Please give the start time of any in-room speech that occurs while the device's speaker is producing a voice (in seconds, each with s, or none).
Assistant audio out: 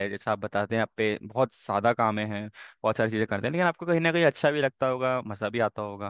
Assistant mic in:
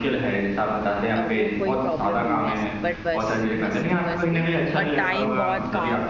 1.2 s